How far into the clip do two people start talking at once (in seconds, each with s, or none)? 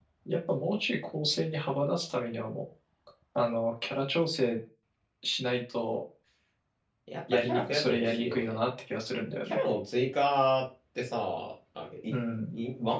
7.3 s